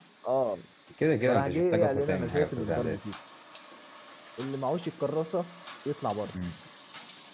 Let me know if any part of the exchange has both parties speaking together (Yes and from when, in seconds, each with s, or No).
Yes, from 1.3 s